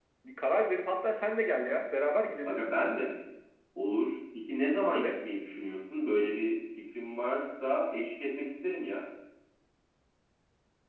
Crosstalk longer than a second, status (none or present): none